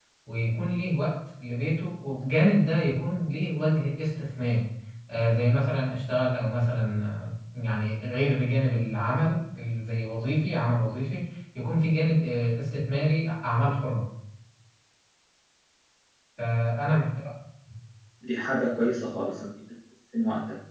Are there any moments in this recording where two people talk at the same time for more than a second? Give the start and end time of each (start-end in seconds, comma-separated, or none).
none